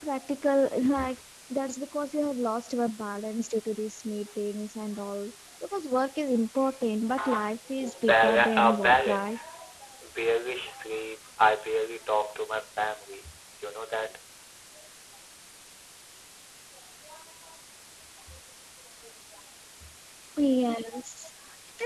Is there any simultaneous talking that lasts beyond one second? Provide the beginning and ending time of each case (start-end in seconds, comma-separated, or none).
8.1-9.4